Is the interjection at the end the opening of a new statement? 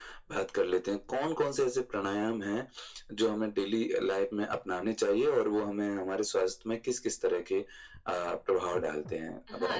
Yes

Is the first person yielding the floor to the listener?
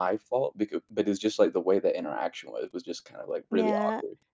Yes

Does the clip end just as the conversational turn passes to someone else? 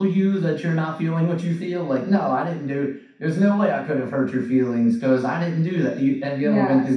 Yes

